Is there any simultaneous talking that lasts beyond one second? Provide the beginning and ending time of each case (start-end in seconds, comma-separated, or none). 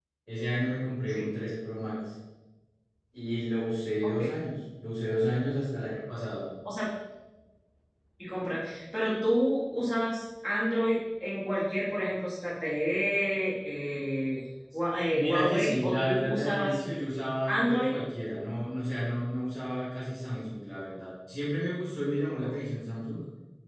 14.9-16.8